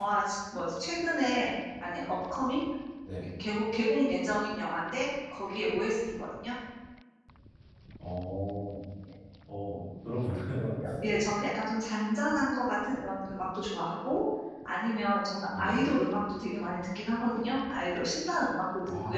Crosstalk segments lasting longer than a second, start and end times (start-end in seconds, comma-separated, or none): none